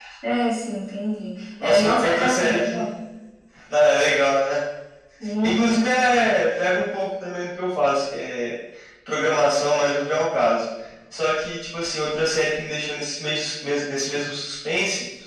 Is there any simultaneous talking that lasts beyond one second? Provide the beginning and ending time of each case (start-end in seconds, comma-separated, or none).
1.6-2.9